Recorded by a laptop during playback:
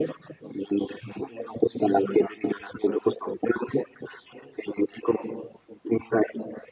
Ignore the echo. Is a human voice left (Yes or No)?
No